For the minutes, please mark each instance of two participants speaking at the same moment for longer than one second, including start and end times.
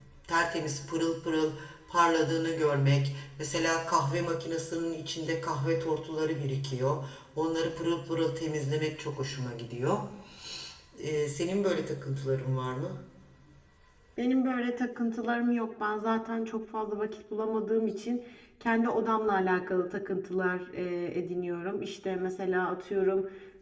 none

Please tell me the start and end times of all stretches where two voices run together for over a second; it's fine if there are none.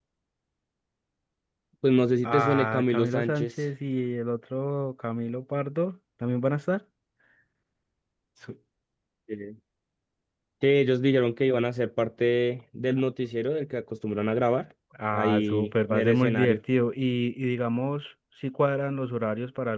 2.2-3.5, 15.1-16.6

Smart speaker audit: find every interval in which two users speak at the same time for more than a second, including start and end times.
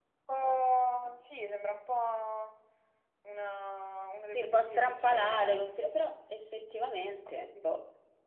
4.3-5.7

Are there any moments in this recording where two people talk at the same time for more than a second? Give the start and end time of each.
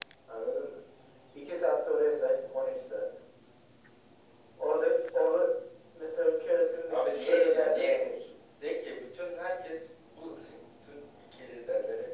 6.9-8.1

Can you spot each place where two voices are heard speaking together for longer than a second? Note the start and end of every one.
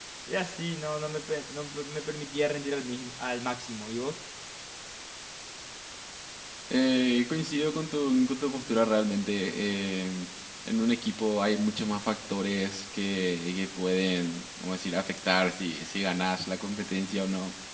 none

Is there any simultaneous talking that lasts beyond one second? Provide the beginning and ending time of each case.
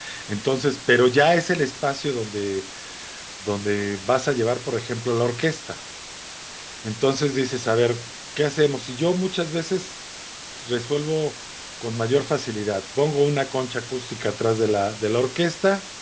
none

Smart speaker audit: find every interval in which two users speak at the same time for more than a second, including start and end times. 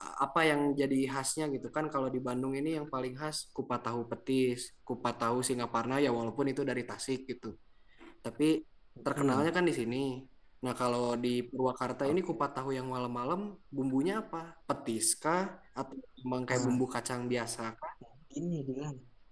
none

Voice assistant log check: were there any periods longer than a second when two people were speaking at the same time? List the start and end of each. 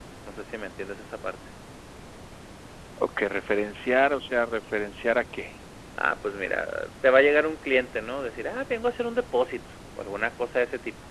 none

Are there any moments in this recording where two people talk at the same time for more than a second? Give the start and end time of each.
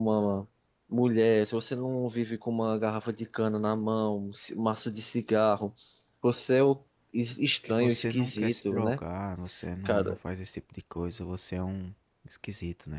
7.7-9.0

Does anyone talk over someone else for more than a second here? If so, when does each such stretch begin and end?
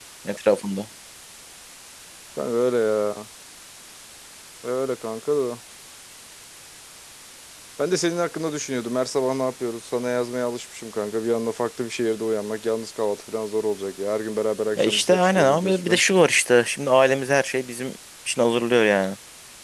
14.8-16.0

